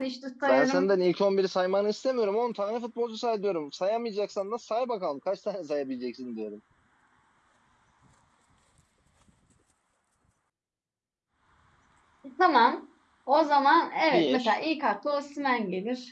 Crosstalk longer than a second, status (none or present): none